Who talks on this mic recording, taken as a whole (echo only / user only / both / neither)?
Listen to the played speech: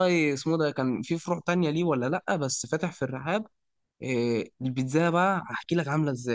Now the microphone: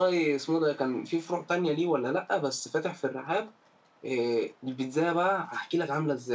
echo only